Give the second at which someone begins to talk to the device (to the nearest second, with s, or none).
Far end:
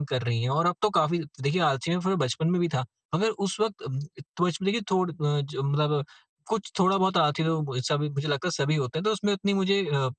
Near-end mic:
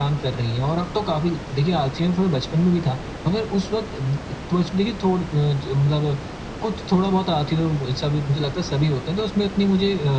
none